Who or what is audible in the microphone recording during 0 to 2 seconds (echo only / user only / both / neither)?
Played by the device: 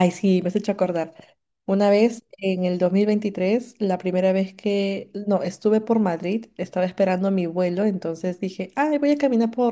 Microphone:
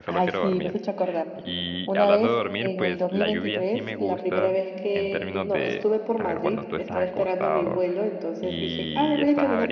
both